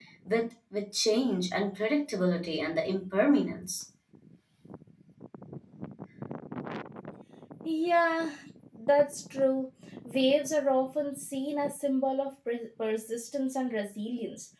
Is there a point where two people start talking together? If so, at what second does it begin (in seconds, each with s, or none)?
none